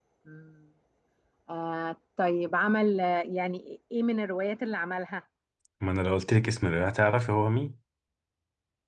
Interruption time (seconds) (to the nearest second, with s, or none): none